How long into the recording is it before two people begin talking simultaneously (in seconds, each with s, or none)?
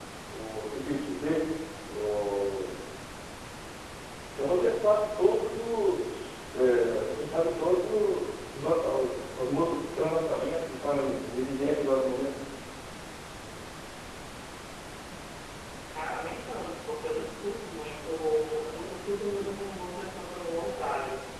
none